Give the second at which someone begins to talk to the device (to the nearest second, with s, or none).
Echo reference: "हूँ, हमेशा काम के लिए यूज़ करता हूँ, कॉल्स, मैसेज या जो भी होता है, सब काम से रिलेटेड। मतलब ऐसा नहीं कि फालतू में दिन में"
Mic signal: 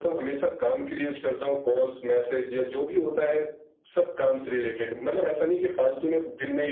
none